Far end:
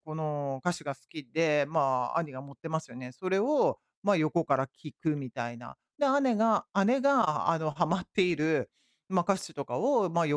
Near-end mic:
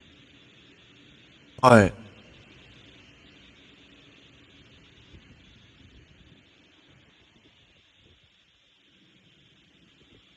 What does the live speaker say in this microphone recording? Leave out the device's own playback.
はい。

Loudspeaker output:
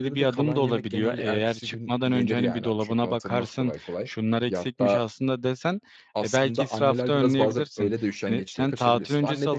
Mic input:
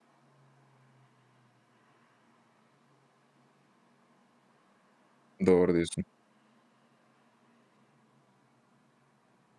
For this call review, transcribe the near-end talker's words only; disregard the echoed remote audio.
Doğru diyorsun.

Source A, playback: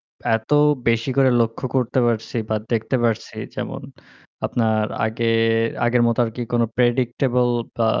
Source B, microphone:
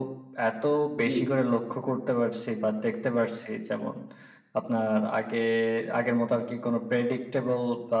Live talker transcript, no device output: জ্বি, জি।

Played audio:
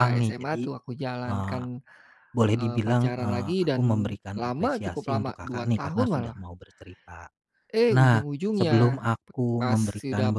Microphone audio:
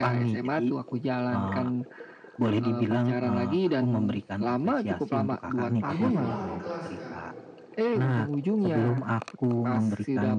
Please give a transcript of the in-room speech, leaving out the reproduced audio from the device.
Jadi itu malah adik kelas Kak,

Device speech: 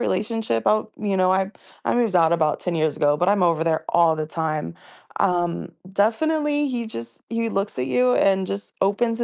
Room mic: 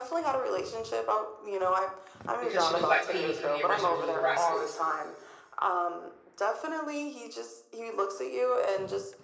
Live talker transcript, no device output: because she looked like Petey from the original Little Rascals.

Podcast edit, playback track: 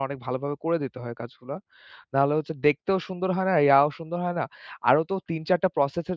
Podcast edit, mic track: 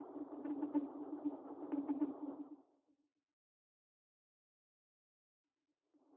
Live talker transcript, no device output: none

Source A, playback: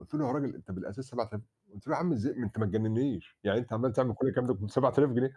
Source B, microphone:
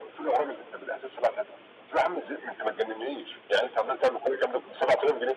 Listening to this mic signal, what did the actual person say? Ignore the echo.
none

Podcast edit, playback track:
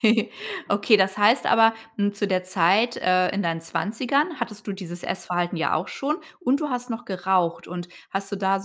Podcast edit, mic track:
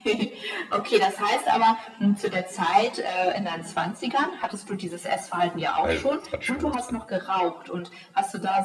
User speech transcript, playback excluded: weil es hat schon was von

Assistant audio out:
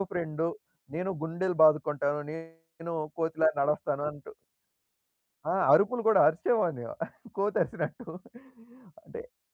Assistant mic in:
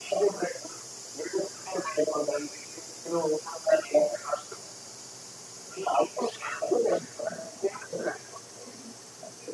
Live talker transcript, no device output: none

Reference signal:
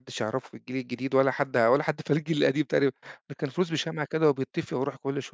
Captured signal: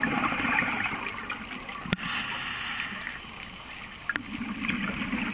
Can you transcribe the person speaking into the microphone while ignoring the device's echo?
none

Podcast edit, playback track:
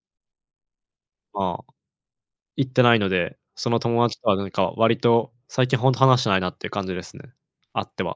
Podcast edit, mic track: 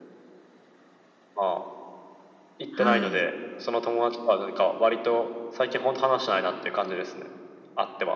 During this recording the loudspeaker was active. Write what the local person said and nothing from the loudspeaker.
はい。

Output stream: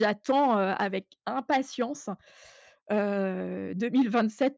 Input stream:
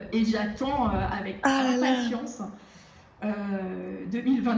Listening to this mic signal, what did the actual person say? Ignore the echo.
Ah la la.

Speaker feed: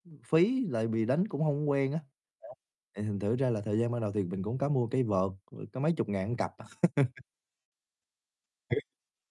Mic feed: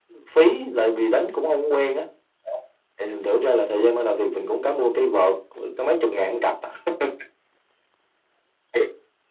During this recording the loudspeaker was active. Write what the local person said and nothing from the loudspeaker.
none

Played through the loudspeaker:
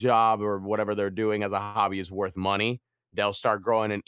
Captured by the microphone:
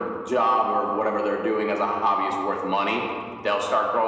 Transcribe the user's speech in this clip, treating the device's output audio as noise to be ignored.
none

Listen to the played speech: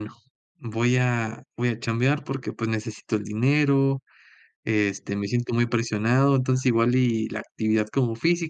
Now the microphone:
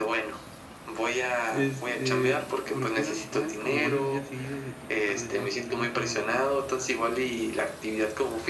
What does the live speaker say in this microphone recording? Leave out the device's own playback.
Este, porque eran eran como varios días seguidos de trabajar de noche, ¿no?, era como de,

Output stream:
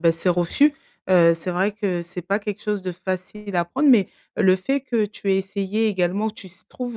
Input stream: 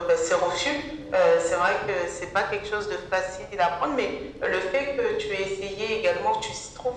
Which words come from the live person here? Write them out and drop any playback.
none

